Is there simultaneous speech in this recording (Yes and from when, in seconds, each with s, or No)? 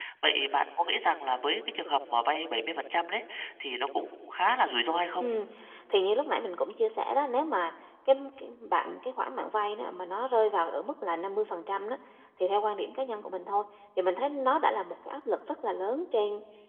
No